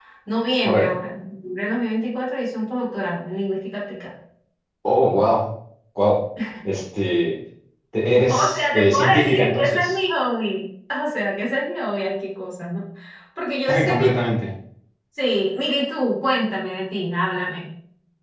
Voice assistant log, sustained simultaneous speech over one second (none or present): present